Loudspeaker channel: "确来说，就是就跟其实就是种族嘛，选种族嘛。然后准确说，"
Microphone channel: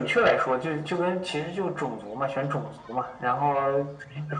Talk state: echo only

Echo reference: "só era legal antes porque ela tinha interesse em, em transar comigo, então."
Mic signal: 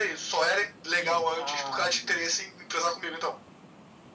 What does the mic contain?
both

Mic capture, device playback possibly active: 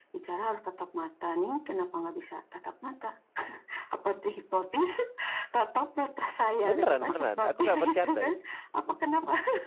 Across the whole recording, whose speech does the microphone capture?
both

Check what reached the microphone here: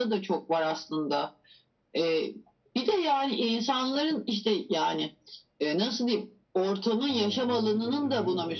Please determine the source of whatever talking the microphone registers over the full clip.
both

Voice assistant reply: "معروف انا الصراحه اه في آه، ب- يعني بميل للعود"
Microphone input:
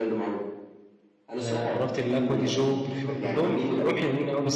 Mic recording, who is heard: both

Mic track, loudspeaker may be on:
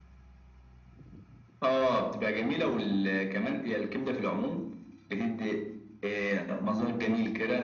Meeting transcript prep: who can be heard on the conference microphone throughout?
echo only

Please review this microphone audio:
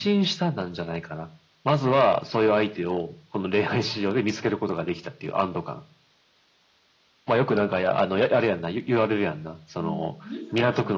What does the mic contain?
both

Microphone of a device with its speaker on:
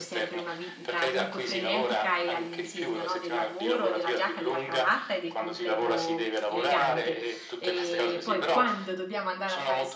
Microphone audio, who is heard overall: both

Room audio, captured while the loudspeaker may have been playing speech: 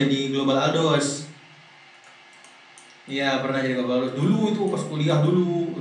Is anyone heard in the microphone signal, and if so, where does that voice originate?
echo only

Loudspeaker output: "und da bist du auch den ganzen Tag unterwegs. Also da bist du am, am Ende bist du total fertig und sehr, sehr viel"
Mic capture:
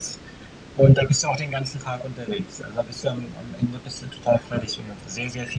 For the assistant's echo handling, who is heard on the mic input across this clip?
echo only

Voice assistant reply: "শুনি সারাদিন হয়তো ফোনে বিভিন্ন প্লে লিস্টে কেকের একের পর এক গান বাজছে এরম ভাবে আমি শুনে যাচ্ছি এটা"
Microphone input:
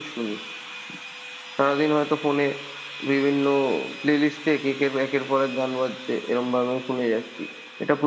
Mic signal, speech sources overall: echo only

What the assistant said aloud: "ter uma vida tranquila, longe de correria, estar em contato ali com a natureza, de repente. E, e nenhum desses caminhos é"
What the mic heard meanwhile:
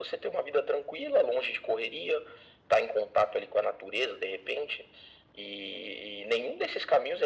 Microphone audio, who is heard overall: echo only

